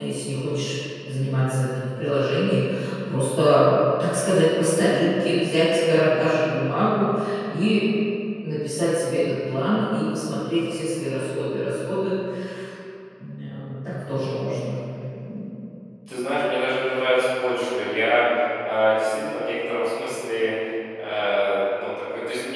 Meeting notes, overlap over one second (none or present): none